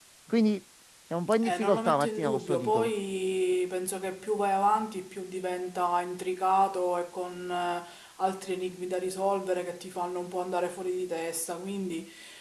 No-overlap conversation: No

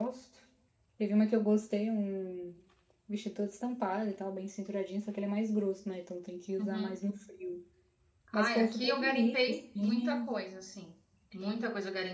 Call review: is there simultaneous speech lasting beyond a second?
Yes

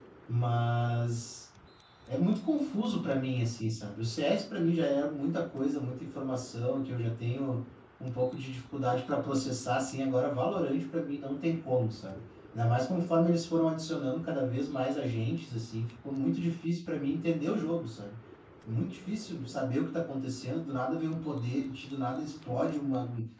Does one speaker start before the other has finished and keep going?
No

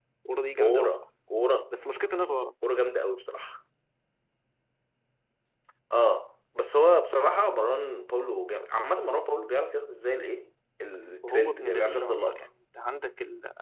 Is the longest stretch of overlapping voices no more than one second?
No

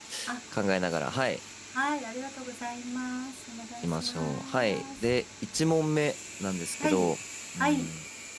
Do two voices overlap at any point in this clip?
Yes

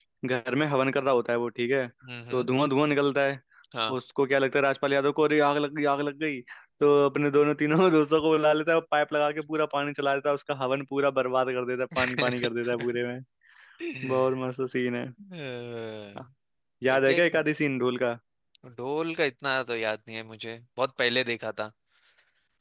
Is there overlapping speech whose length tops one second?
No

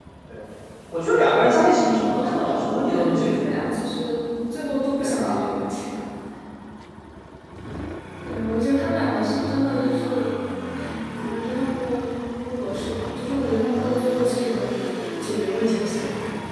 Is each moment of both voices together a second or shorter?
No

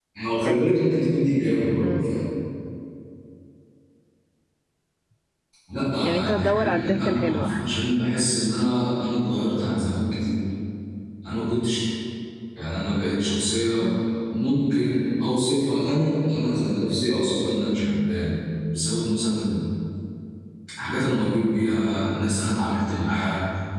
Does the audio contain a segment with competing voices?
Yes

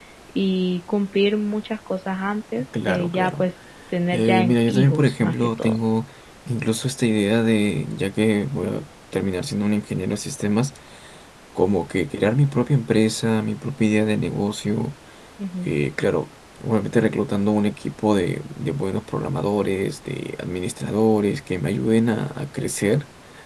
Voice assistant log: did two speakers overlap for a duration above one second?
Yes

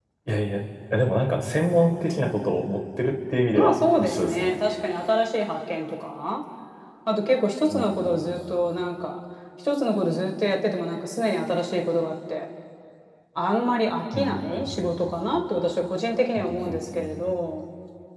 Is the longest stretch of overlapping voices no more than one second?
No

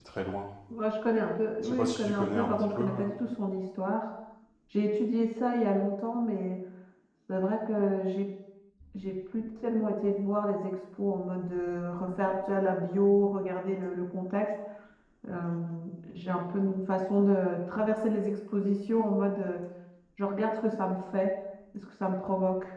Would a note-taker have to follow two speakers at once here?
Yes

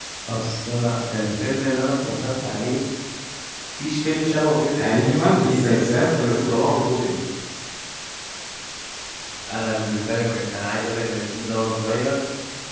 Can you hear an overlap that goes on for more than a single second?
Yes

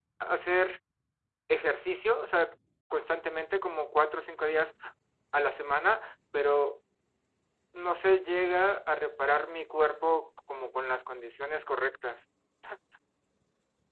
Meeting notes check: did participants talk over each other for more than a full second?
No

